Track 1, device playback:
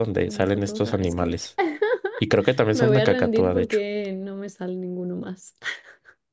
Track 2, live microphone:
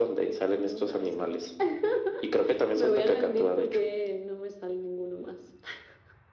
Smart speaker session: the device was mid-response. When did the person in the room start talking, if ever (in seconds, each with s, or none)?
none